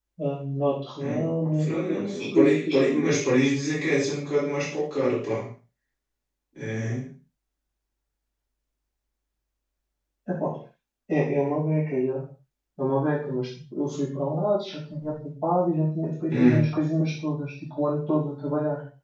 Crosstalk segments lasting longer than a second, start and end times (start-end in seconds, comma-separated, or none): 1.0-3.2